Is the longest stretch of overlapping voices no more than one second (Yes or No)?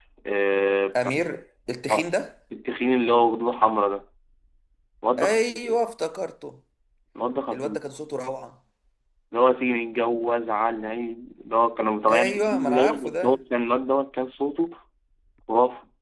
No